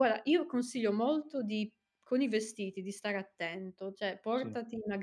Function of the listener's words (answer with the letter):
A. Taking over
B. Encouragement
B